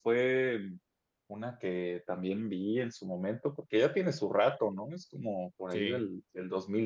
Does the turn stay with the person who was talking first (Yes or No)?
Yes